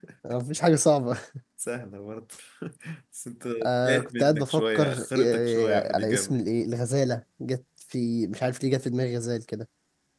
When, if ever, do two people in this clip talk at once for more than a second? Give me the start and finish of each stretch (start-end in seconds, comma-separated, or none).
3.8-6.4